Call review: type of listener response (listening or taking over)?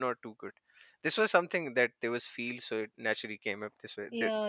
taking over